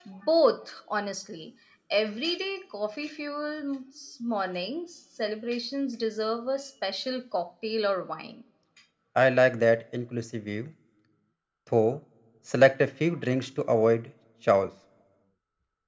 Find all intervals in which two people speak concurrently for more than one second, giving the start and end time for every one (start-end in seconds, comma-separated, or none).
none